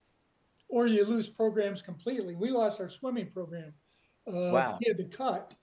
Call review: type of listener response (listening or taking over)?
listening